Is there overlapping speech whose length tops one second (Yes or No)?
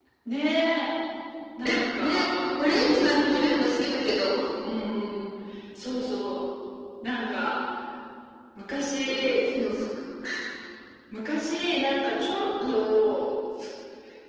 Yes